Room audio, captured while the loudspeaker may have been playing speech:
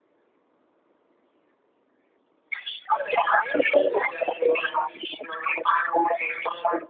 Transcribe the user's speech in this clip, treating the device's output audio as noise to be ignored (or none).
none